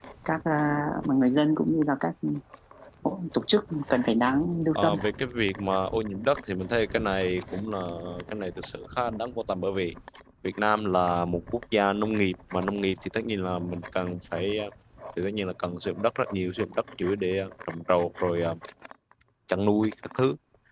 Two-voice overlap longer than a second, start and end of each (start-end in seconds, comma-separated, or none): none